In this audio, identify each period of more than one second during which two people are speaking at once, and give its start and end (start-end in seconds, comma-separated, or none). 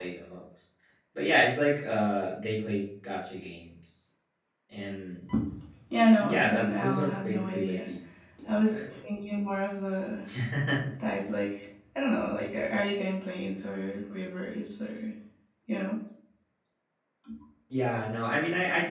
6.2-7.9